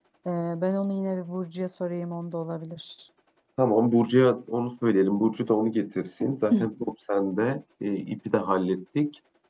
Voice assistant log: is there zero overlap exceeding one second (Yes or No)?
Yes